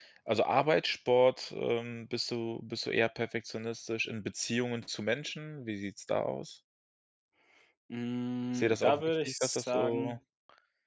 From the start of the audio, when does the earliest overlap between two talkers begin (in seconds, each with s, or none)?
8.5 s